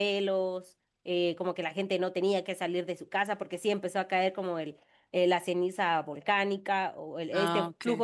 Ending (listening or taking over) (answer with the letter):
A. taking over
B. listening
B